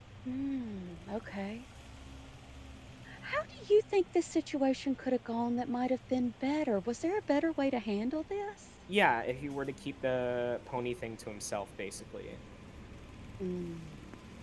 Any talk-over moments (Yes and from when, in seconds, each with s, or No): No